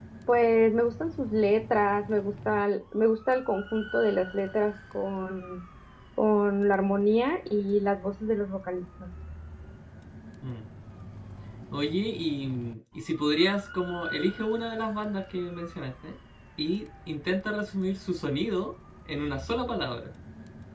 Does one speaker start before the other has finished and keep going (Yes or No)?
No